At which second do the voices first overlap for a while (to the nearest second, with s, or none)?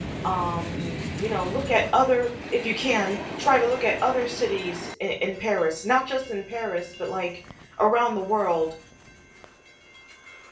none